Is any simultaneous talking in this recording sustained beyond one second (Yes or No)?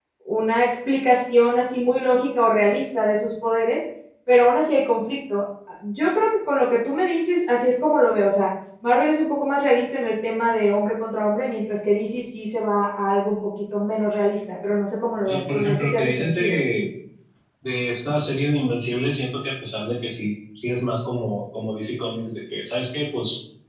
Yes